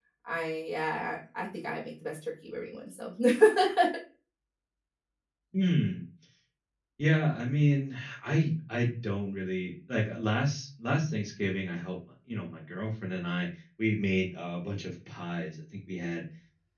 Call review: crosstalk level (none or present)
none